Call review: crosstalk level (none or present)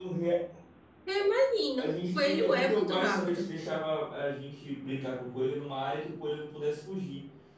present